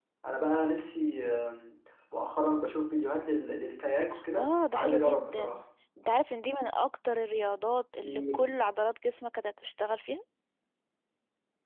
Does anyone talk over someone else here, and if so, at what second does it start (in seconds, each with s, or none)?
4.3 s